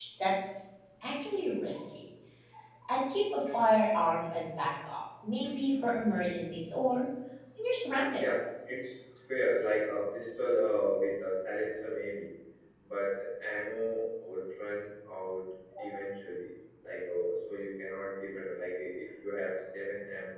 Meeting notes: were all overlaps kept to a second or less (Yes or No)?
Yes